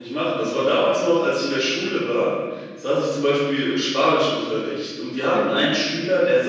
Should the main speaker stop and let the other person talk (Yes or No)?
No